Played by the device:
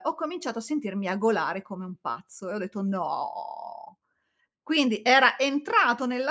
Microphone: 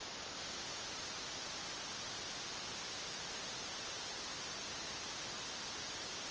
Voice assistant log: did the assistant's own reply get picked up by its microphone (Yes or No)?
No